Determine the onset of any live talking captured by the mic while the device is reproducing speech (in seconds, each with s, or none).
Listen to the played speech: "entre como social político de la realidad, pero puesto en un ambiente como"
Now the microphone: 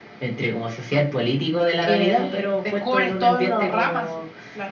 1.9 s